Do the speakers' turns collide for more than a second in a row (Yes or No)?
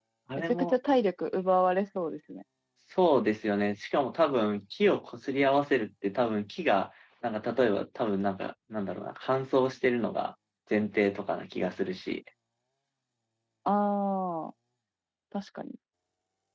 No